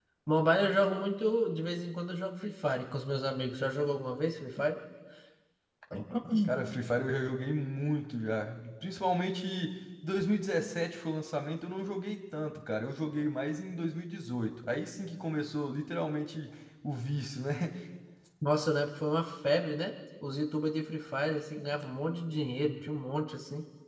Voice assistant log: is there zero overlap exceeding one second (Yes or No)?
Yes